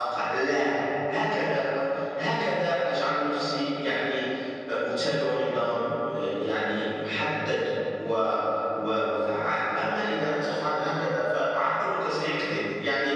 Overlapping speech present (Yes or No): No